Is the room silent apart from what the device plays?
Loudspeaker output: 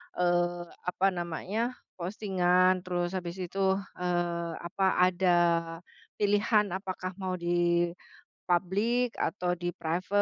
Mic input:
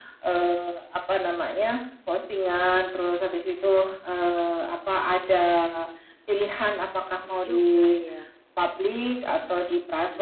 No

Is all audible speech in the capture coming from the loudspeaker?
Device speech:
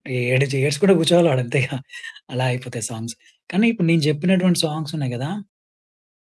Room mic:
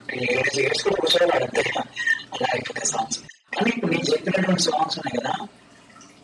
No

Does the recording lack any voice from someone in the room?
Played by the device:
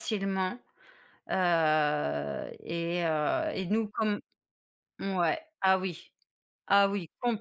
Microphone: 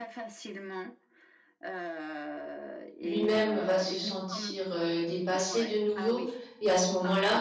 No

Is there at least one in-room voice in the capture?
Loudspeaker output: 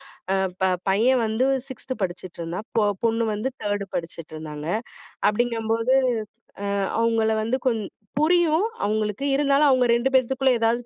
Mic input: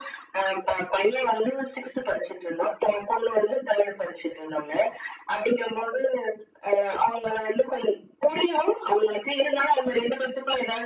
No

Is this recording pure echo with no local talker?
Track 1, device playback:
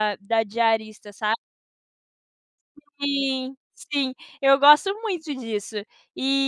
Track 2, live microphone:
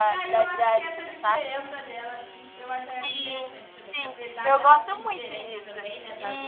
No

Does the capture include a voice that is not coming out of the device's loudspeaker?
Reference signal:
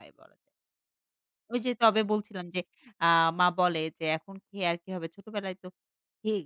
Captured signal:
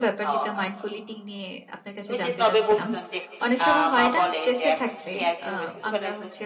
Yes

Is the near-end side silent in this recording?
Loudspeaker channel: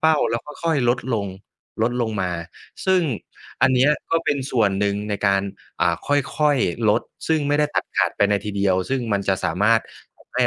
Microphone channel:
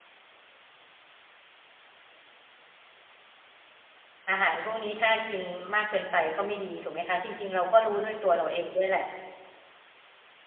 No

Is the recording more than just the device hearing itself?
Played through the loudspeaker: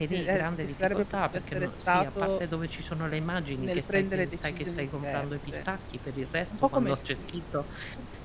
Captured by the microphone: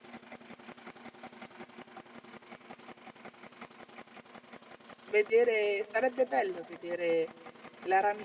Yes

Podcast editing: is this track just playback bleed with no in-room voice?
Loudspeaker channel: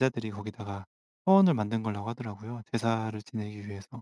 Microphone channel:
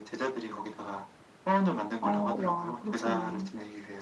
No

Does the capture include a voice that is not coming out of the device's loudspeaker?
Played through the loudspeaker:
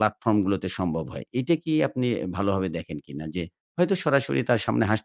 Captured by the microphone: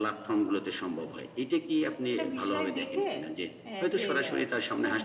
Yes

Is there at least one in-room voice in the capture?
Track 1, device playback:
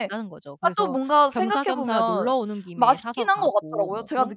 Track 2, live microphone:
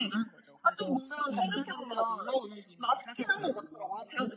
Yes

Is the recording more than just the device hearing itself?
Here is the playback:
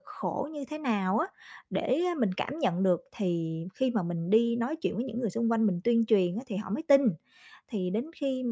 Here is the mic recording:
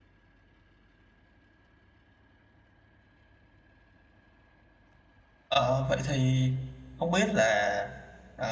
Yes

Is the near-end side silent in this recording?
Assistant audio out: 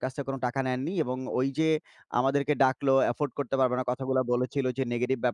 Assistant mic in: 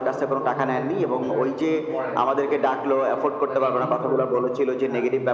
No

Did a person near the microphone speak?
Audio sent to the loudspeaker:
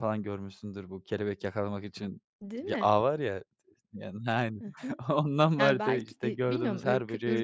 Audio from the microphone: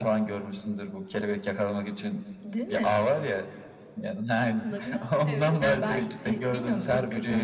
Yes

